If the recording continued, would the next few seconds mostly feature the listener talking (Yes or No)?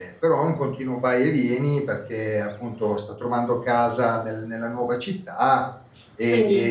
No